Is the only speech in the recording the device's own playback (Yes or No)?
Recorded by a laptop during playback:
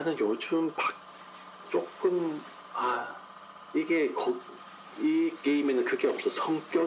Yes